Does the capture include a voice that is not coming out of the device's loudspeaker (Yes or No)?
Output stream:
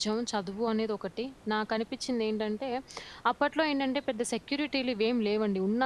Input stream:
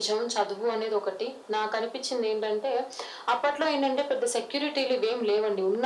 No